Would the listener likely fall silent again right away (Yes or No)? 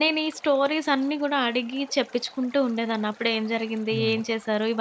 Yes